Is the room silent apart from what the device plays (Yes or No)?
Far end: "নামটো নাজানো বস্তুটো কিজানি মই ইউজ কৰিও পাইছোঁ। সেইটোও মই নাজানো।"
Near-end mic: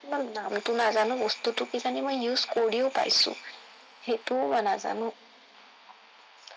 Yes